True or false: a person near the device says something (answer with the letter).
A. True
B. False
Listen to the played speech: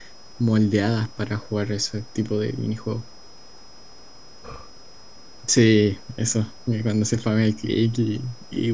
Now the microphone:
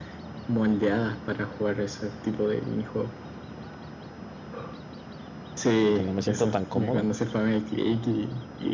A